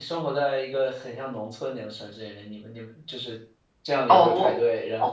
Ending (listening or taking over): taking over